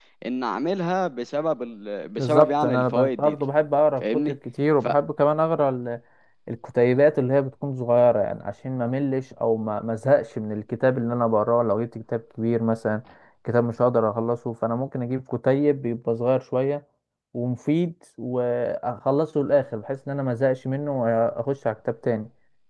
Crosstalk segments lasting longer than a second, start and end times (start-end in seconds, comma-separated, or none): 2.2-3.4